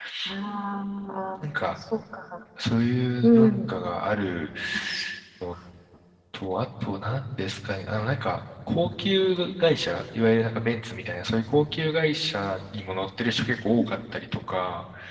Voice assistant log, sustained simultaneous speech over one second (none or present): none